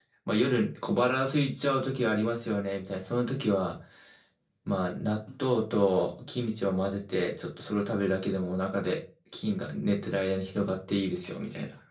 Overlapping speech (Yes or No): No